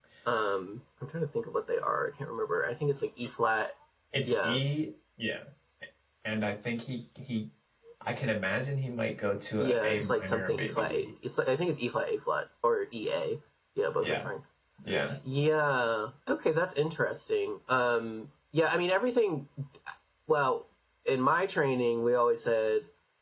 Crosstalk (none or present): present